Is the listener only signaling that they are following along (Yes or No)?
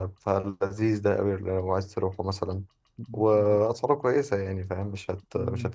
No